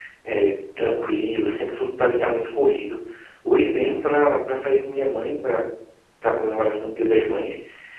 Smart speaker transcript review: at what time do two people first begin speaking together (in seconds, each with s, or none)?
none